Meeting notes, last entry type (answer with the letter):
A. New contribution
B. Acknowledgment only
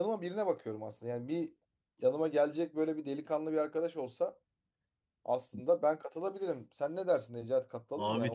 A